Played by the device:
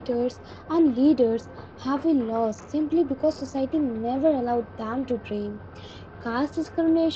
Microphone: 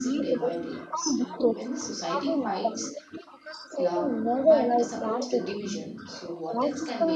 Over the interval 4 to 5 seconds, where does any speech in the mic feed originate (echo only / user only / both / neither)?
both